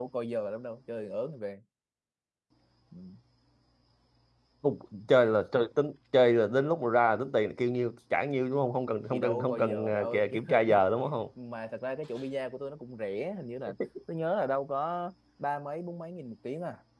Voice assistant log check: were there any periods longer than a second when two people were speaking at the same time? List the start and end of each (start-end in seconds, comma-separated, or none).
9.1-10.8